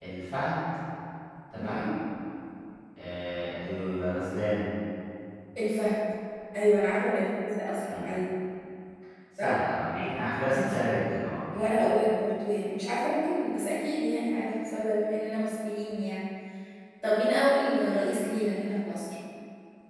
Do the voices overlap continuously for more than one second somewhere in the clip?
No

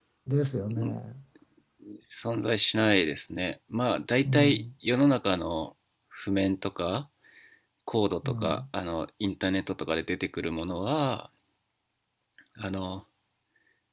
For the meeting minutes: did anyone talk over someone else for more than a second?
No

